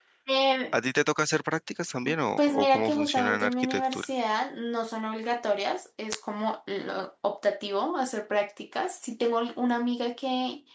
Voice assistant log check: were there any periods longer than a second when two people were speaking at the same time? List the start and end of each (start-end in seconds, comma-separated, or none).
2.4-4.0